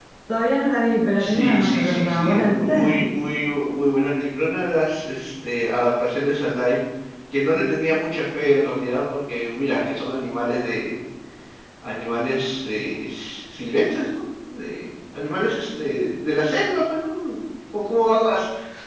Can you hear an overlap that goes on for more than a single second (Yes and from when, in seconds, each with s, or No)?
Yes, from 1.2 s